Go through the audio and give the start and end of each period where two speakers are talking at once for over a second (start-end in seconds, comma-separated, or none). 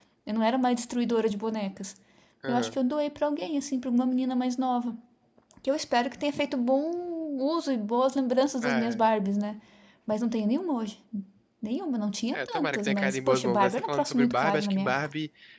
12.3-15.1